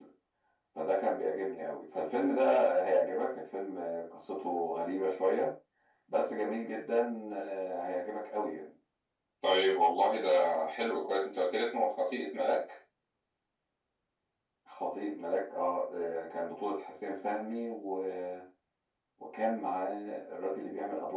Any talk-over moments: No

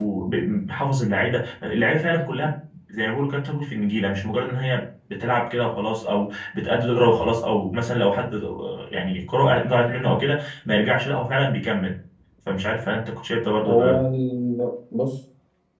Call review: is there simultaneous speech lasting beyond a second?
No

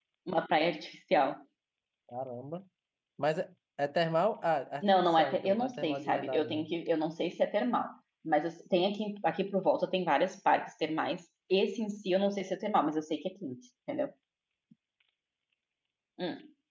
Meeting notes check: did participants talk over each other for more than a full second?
Yes, from 4.8 s

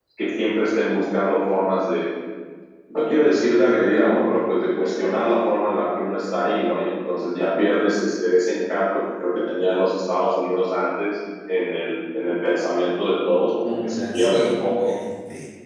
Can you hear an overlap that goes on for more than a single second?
Yes, from 13.6 s

